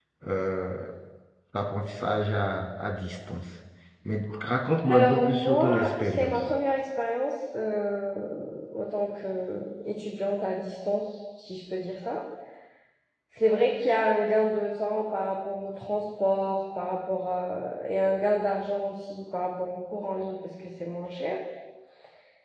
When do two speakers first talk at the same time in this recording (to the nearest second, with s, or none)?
5 s